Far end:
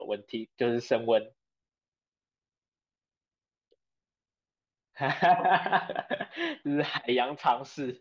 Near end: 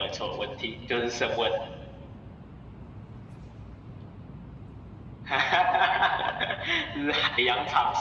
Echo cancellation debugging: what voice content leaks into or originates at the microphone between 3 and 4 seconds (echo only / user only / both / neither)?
neither